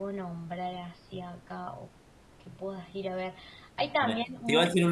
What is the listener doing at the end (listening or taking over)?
taking over